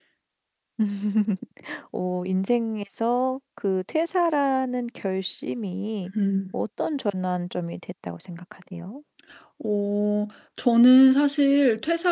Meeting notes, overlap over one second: none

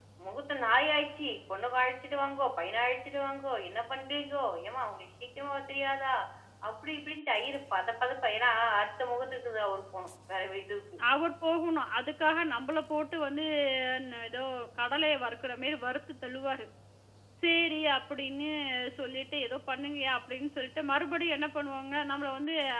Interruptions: none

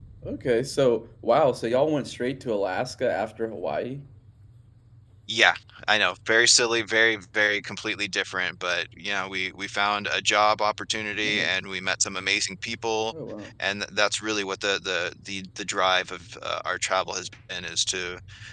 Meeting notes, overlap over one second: none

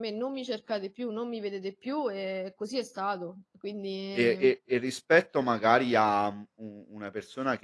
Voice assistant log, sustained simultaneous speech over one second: none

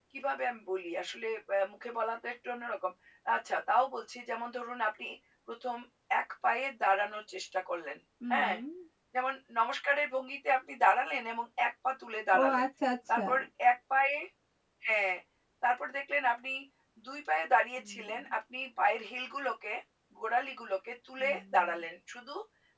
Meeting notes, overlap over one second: none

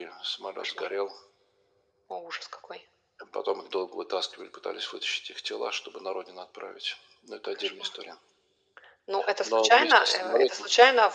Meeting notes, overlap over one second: present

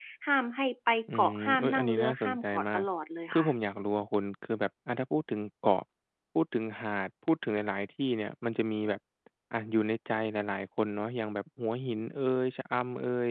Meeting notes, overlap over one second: present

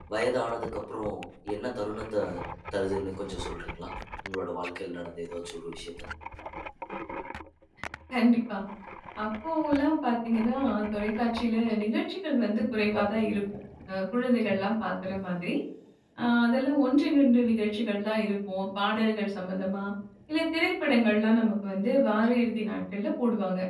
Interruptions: none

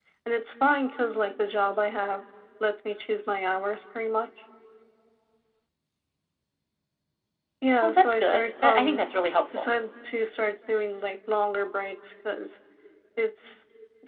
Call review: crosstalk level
present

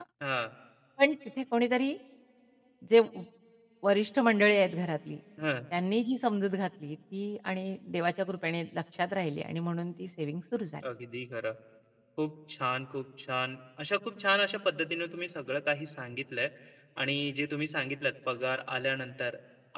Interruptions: none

